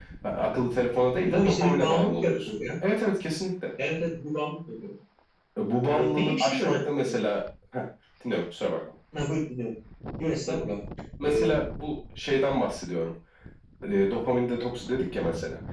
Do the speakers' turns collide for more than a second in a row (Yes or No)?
Yes